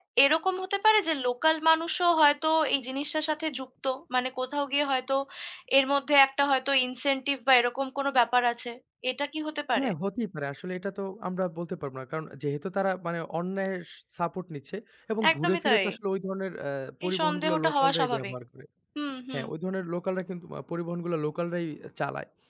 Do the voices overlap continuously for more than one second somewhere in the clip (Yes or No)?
Yes